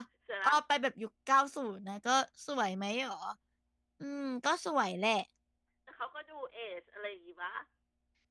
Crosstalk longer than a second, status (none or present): none